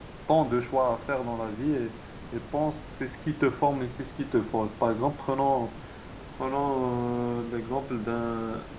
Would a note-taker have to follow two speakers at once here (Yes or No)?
No